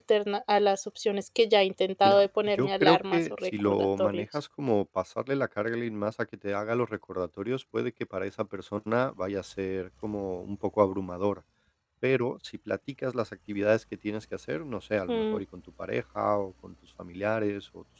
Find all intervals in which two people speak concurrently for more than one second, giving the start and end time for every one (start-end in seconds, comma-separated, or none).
2.0-4.2